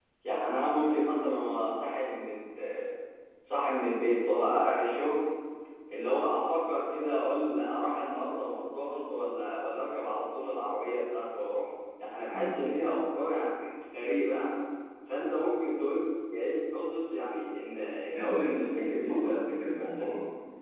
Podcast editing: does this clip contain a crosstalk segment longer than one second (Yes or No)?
Yes